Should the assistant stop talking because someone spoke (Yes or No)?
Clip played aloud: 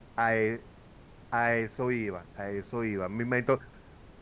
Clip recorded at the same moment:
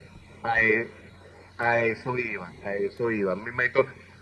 No